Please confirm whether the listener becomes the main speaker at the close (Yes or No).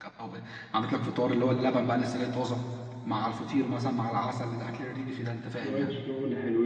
Yes